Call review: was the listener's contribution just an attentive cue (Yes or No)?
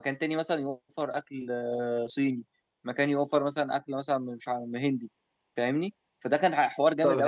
No